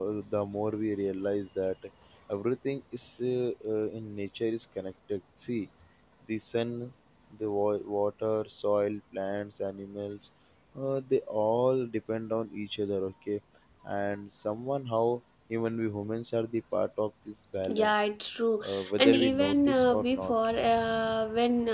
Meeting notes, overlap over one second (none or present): present